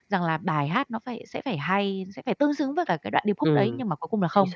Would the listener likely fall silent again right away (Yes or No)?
No